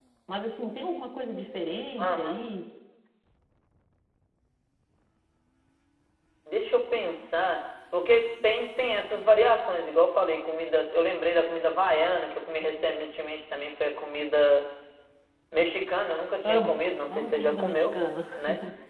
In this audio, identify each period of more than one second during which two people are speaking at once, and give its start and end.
16.4-17.9

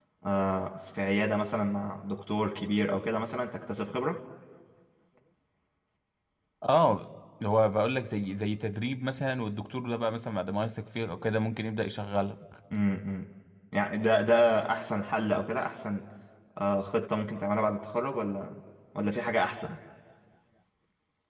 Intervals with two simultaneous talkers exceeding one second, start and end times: none

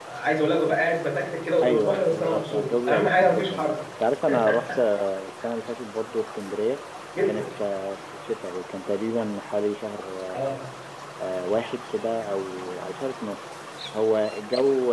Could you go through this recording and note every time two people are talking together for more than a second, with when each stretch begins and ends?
1.6-3.5

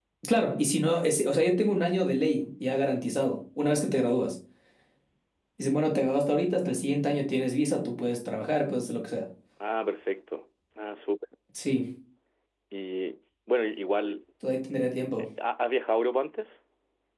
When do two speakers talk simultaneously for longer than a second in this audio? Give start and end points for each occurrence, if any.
none

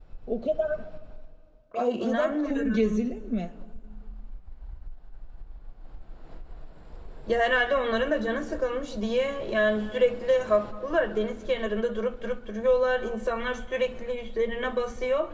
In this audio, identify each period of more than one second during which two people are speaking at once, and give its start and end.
1.7-3.1

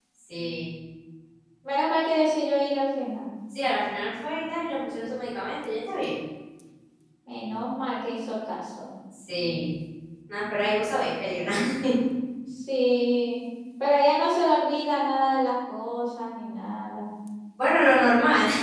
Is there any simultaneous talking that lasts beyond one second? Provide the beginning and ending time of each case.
none

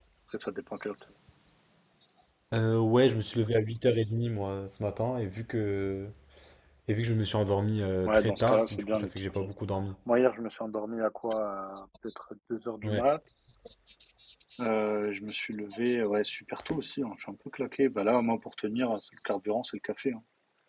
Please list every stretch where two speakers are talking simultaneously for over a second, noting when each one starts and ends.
8.1-9.5

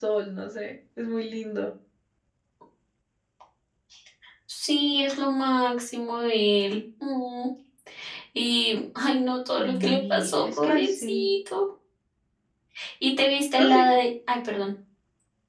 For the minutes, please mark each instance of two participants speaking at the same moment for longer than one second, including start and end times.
9.6-11.3

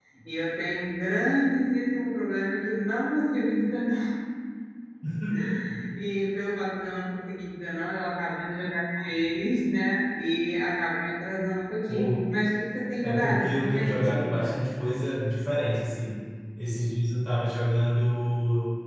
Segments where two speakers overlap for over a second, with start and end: 13.0-14.3

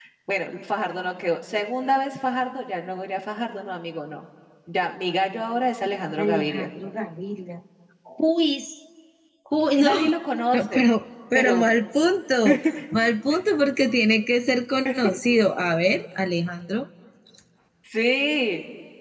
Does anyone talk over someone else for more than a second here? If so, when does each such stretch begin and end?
none

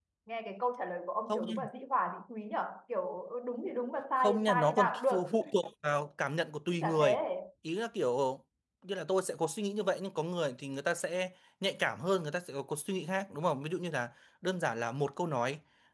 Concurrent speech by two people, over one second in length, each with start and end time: 4.2-5.5

